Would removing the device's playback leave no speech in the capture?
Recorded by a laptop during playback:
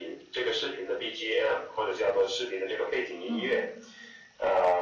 No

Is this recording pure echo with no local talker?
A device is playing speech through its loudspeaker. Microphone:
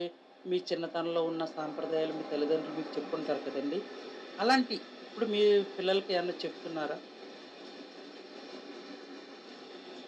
Yes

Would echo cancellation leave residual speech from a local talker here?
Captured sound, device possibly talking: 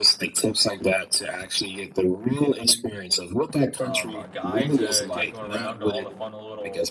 Yes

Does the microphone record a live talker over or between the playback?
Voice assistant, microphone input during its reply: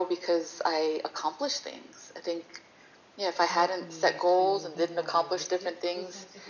Yes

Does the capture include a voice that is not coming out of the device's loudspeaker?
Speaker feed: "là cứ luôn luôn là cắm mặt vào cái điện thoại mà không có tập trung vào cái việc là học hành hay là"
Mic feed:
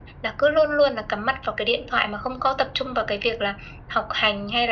No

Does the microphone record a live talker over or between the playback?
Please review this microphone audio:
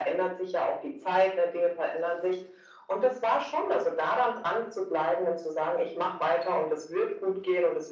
No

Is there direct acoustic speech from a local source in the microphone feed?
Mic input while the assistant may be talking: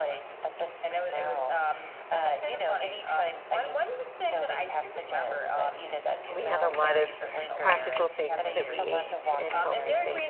Yes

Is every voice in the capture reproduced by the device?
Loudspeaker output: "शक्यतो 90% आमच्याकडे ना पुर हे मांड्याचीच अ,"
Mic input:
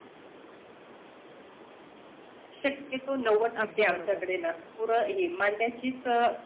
No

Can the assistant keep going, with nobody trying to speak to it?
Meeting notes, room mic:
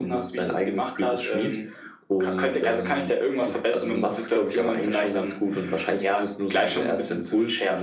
Yes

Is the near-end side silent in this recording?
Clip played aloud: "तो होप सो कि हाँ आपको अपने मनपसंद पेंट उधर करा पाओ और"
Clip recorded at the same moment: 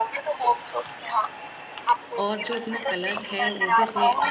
No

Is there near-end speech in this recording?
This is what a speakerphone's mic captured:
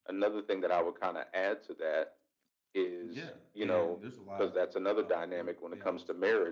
Yes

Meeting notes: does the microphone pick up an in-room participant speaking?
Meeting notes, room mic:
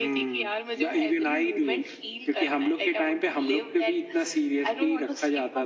No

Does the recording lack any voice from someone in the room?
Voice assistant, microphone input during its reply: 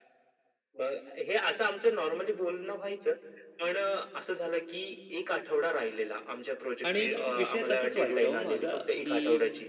No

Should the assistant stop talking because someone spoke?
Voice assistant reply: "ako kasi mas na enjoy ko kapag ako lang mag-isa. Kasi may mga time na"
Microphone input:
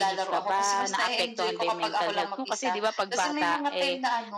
Yes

